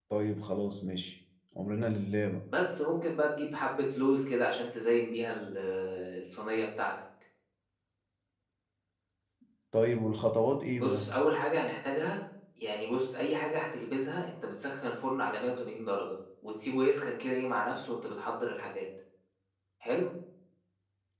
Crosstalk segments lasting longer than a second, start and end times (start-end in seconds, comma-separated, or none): none